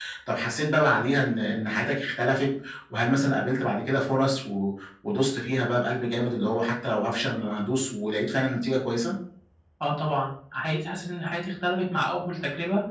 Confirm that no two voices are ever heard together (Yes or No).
Yes